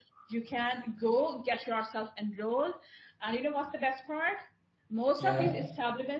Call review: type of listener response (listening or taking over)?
listening